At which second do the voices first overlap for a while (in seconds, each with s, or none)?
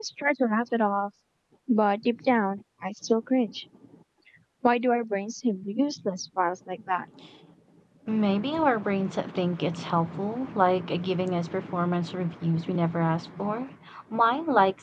none